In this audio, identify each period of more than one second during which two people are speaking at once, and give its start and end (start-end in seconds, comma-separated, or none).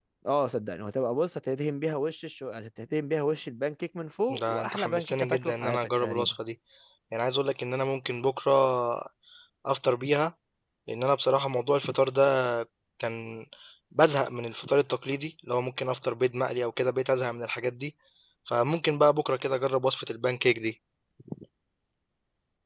4.4-6.3